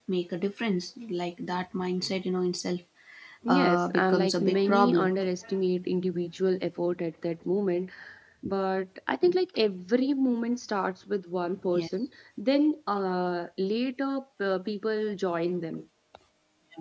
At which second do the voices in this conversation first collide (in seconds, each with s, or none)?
3.5 s